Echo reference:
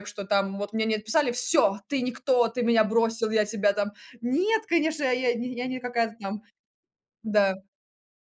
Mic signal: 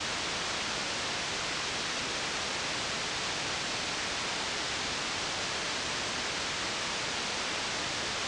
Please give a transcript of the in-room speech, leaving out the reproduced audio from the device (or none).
none